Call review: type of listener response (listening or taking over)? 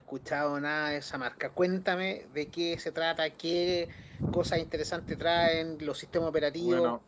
taking over